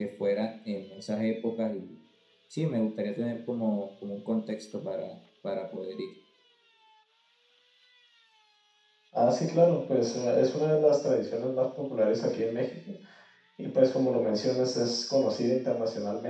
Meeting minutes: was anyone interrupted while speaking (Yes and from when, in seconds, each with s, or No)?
No